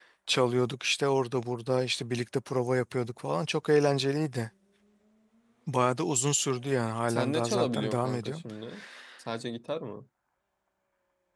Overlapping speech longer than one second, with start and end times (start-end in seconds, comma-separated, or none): 7.1-8.4